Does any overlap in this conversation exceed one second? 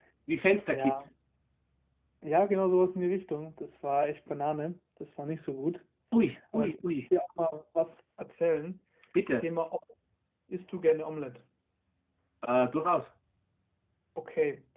No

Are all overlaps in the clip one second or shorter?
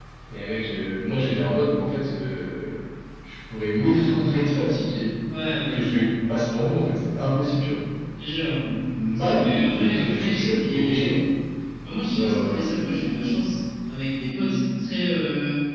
No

